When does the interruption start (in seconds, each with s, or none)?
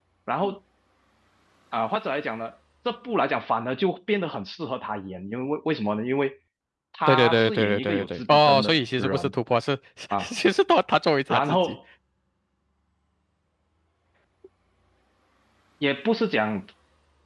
7.1 s